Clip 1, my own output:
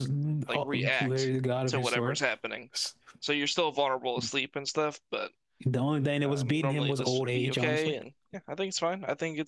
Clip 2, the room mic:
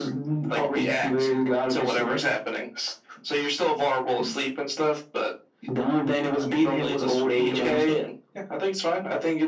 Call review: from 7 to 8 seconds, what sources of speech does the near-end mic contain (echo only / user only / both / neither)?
echo only